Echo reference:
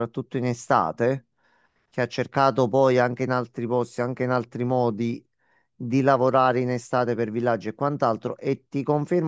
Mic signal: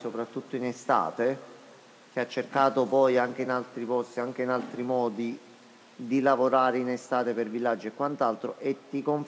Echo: present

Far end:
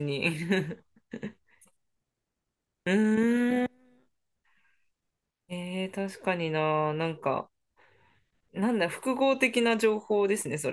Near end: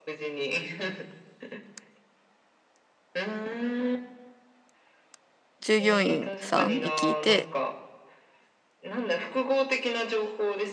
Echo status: present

